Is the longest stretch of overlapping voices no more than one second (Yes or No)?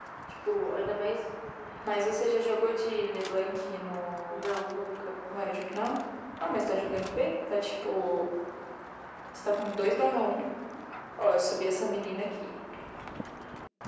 Yes